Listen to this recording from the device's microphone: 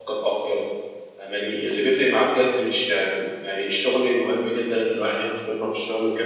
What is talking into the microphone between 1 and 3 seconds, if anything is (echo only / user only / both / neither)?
user only